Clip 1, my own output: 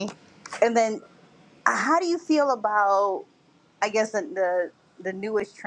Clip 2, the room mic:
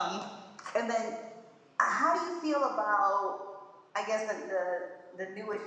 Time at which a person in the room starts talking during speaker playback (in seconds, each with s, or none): none